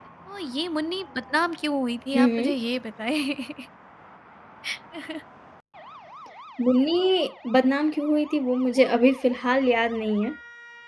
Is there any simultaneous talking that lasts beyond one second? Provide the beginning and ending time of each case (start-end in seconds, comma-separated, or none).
none